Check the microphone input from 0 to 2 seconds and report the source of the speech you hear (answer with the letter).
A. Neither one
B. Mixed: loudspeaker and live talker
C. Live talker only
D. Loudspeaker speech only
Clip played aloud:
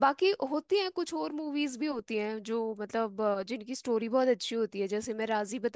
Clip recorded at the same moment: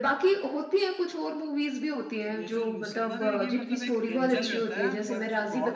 D